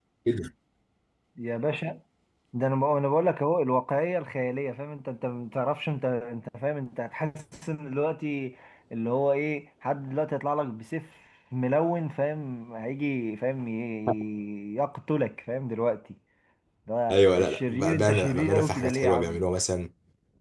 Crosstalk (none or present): present